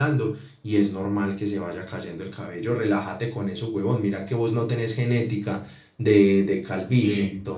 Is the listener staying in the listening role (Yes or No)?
Yes